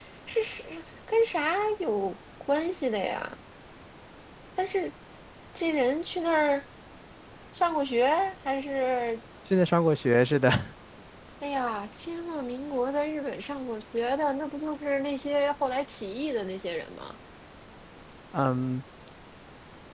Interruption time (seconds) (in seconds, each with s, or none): none